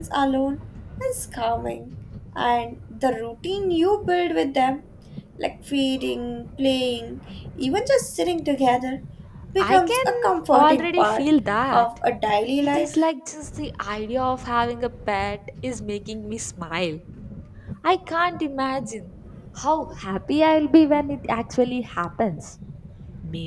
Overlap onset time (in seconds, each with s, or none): 9.6 s